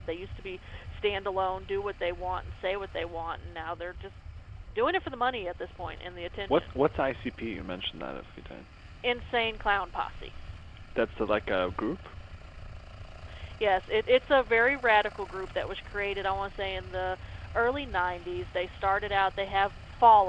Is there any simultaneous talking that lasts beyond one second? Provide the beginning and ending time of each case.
none

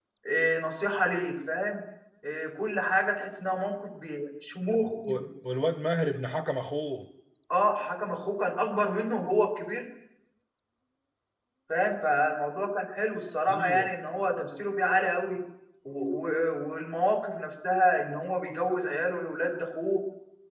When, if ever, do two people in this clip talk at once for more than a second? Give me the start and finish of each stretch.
none

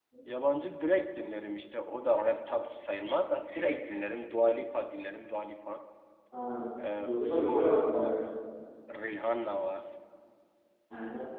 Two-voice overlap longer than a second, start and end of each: 6.8-8.2

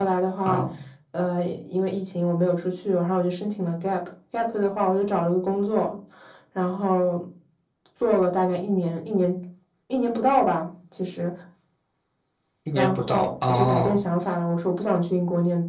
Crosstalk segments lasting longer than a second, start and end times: 12.8-14.0

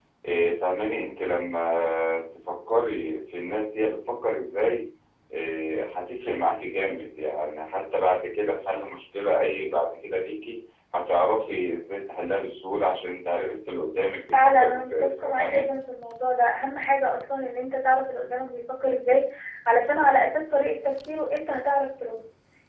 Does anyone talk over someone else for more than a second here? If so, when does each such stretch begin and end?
14.3-15.6

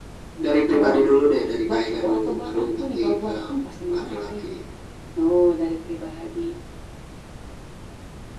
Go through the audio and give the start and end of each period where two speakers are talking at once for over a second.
1.7-3.3

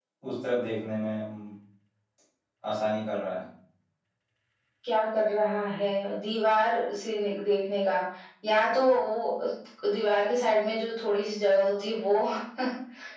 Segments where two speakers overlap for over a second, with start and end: none

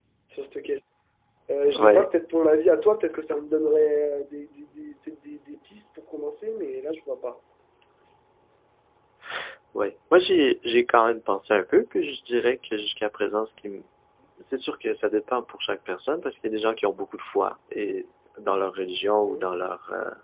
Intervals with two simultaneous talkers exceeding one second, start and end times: none

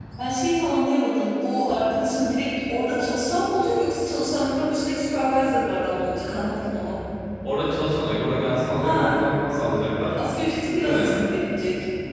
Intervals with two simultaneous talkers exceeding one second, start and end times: none

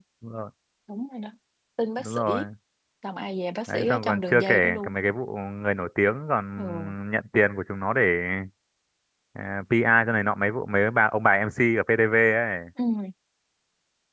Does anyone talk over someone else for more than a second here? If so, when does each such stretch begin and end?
3.7-4.9

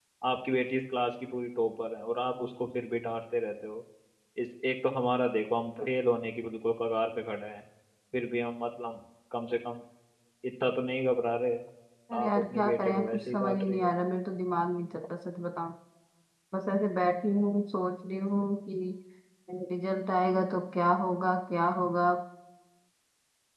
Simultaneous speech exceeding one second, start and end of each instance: 12.2-13.9

